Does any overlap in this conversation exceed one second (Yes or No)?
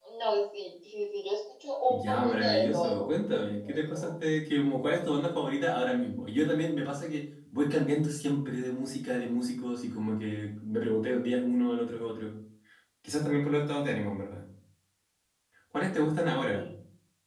Yes